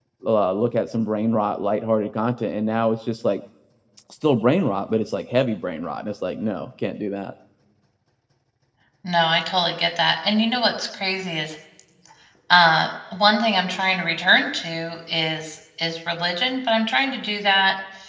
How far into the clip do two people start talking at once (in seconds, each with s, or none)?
none